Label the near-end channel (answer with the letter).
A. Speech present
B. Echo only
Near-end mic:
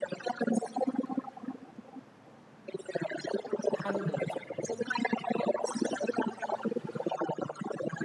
A